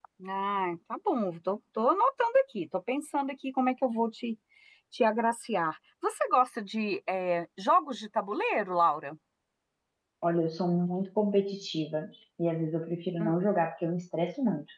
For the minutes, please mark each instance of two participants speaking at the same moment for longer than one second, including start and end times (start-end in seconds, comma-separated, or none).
none